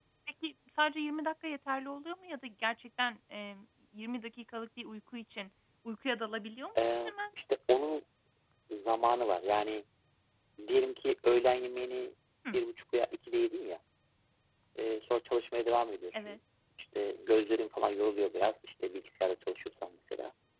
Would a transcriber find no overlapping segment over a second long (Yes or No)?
Yes